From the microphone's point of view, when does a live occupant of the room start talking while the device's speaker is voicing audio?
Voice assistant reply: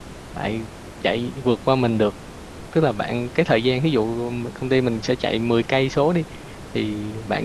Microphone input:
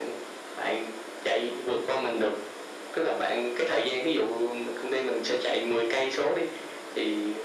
none

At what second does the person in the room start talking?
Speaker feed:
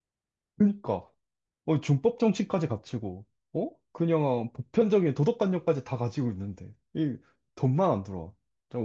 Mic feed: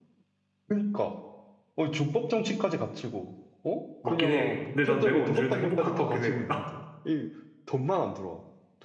4.0 s

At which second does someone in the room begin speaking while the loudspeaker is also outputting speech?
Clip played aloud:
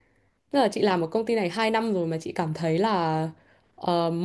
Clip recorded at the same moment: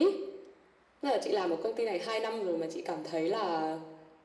none

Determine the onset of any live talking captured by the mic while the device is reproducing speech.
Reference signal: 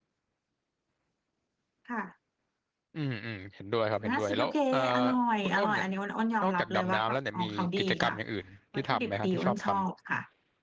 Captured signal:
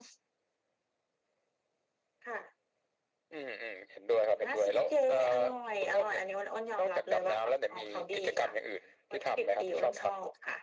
none

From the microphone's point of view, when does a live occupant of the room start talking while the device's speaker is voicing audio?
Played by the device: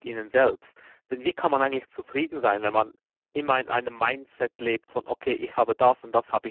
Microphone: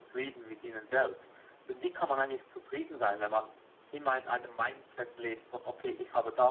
none

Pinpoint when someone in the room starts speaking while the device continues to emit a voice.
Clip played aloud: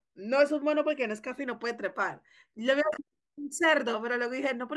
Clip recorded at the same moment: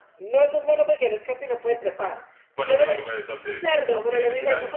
2.5 s

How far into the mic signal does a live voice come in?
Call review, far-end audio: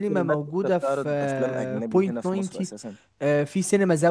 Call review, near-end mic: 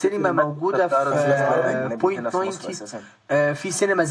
1.1 s

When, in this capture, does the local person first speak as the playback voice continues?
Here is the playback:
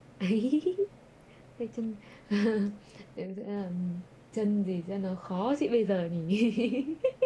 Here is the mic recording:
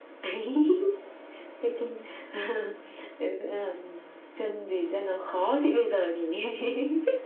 none

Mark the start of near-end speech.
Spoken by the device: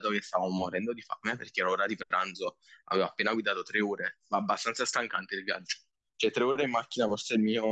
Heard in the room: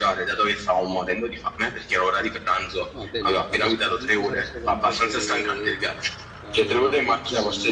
2.9 s

